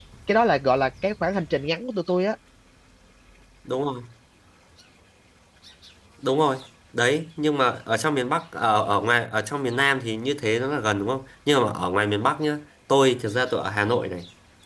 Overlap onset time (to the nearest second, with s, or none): none